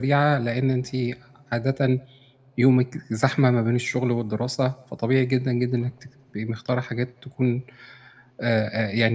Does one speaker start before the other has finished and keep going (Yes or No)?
No